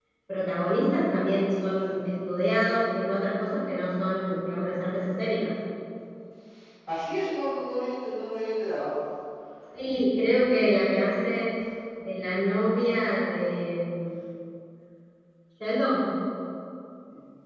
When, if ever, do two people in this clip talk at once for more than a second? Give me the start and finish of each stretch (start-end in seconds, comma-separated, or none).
none